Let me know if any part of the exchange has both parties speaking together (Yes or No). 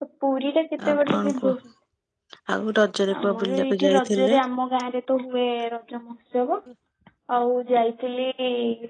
Yes